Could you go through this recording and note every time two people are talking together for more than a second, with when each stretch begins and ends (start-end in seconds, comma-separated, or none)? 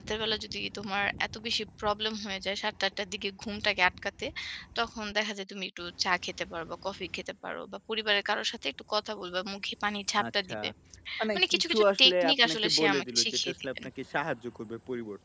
11.3-13.7